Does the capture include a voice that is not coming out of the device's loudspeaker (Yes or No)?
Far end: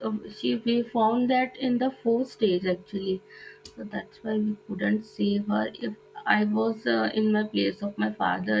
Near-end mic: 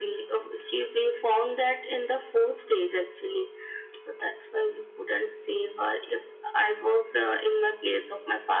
No